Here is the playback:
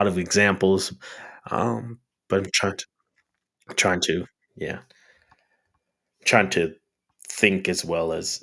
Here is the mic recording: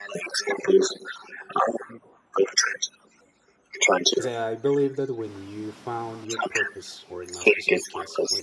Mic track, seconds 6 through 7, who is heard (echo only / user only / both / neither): both